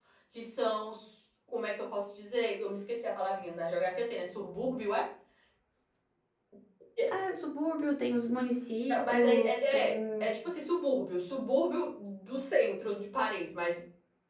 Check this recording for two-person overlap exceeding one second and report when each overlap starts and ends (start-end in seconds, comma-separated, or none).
8.9-10.3